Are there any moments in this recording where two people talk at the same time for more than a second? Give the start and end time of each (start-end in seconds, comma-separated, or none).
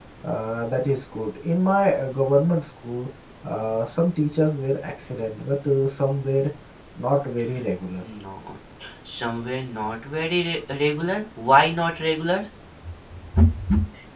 none